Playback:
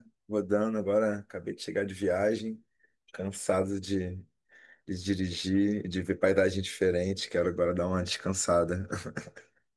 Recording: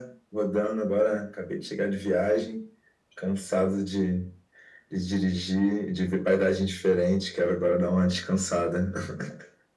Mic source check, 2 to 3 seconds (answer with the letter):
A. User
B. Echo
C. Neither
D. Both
B